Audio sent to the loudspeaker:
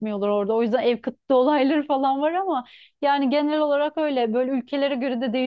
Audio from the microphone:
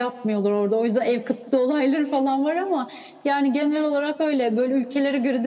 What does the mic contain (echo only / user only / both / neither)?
echo only